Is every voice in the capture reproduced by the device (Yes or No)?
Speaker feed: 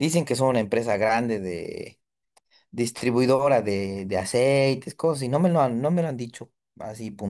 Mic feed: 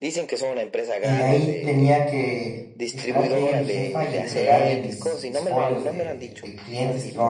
No